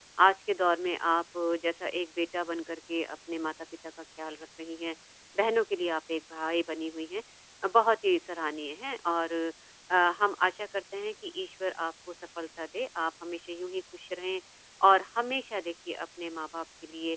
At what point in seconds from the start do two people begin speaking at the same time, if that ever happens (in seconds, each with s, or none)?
none